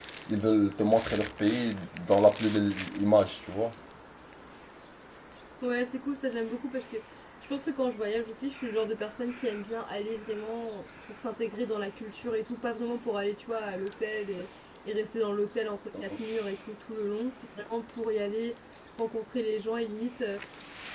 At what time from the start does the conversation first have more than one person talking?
none

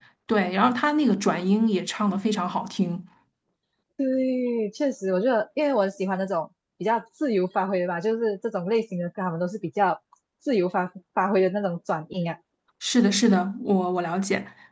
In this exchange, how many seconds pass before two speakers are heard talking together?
none

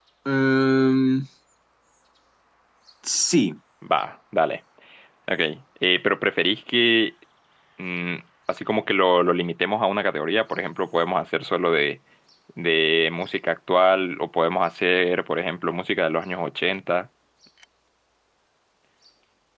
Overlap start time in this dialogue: none

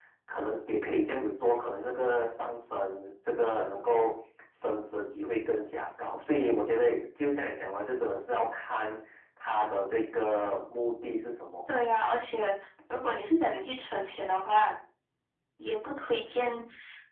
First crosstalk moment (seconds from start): none

